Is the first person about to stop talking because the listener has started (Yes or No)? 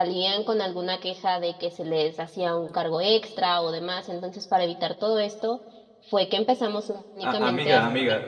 Yes